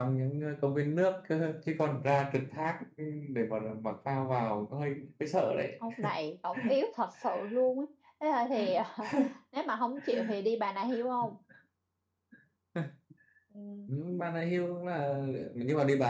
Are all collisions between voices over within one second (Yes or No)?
Yes